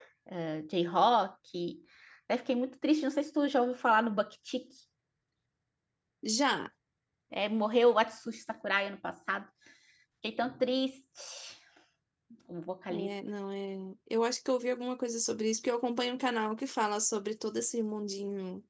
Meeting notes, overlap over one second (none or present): none